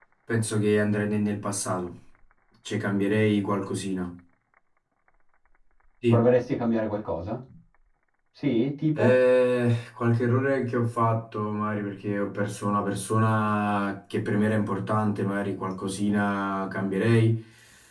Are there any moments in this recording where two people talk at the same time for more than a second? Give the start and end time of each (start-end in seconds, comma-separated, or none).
none